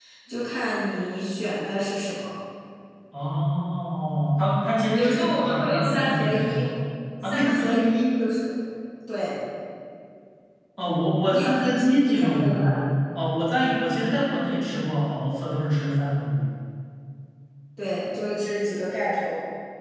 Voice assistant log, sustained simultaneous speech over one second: present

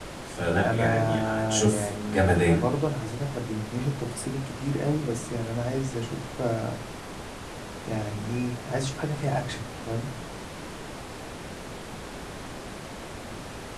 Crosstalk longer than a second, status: present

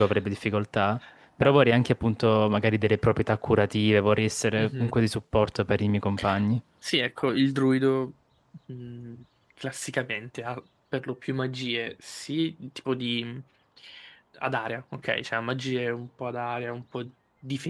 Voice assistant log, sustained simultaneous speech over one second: none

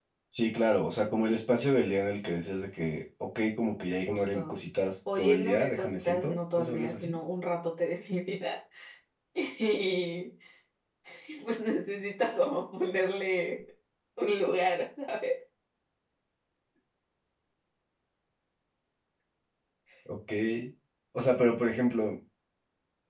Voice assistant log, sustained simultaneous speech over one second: present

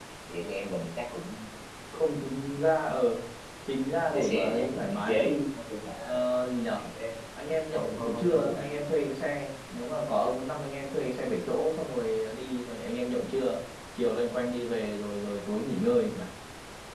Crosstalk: present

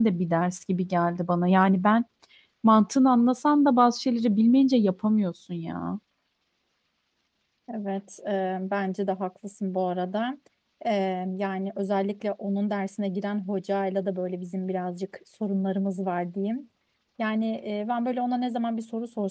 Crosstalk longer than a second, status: none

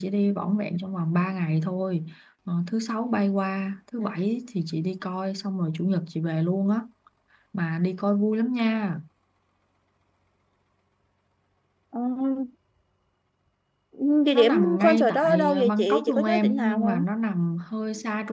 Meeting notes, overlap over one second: present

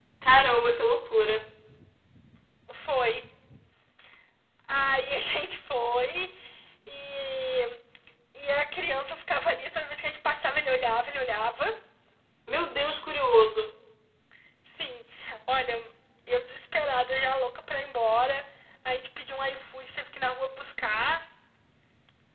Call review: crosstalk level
none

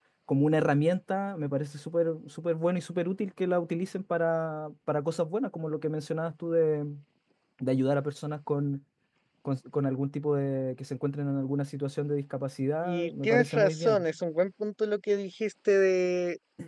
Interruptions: present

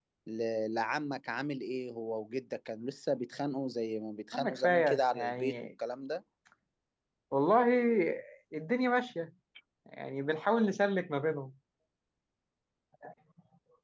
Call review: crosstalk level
present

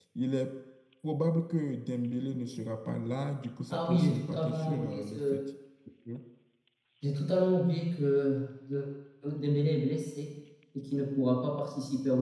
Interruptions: present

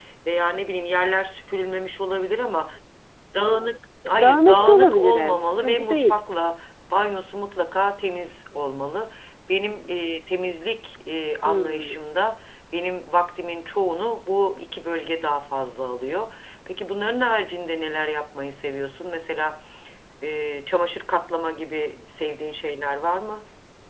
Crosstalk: present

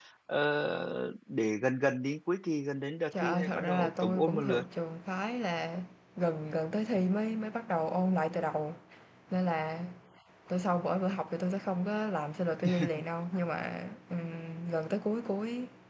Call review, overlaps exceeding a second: present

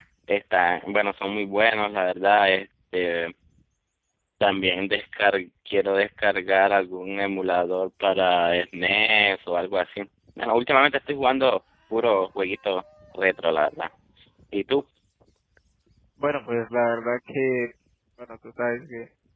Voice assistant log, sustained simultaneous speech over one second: none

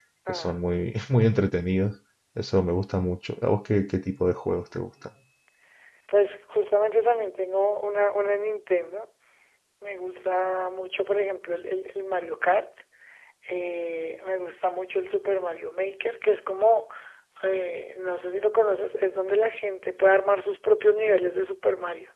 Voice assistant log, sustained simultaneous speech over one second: none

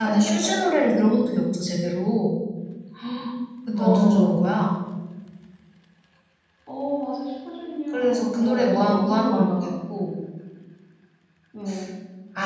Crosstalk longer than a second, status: present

